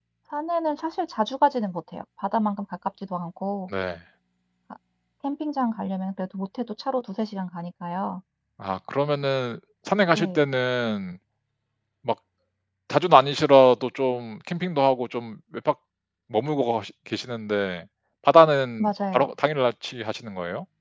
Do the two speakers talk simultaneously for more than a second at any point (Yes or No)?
No